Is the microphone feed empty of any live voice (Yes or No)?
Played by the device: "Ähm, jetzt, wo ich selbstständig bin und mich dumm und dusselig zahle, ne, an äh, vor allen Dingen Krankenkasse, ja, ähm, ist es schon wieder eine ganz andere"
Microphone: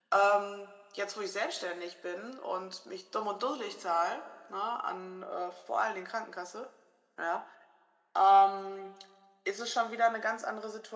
Yes